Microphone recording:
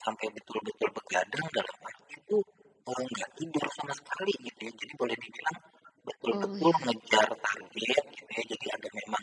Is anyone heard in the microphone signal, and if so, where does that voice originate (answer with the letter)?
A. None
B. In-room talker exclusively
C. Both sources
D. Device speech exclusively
C